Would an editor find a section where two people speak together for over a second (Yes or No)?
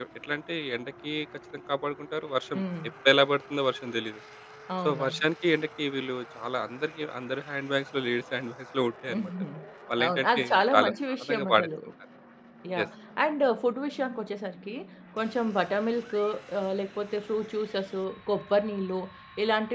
Yes